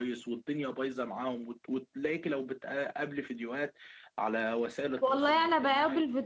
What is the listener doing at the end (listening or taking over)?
taking over